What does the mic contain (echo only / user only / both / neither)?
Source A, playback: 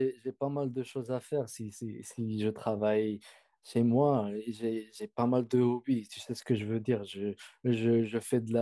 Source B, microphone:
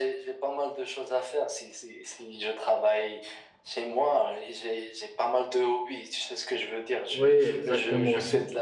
both